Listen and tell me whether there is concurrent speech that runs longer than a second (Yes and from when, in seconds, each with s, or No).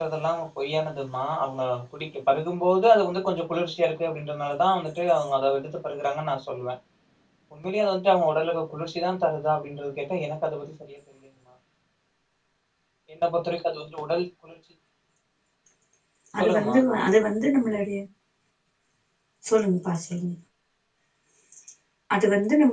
No